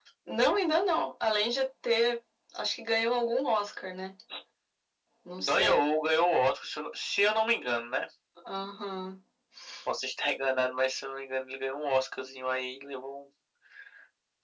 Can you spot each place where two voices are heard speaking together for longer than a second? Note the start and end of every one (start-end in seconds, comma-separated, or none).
none